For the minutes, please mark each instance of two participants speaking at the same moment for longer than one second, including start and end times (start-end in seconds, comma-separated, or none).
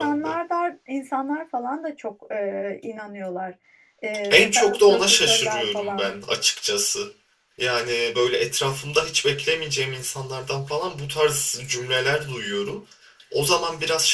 4.3-6.1